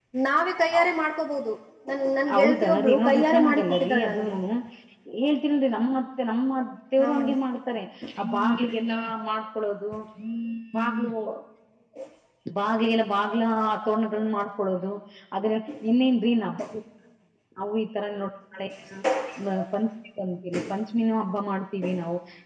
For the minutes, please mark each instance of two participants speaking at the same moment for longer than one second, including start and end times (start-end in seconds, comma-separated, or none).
2.3-4.3